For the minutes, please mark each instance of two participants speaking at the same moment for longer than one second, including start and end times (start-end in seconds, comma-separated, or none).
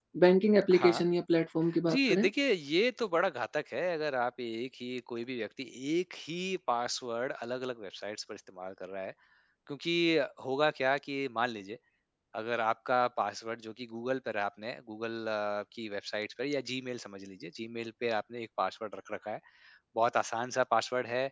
none